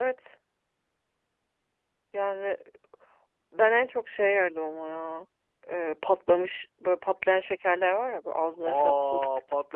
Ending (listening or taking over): taking over